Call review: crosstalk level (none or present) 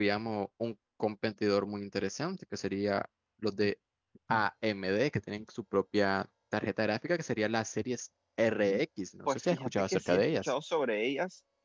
present